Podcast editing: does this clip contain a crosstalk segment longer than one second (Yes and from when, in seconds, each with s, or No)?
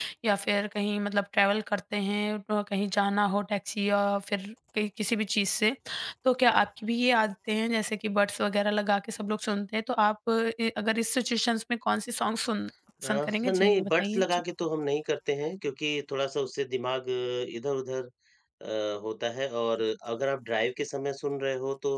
Yes, from 13.0 s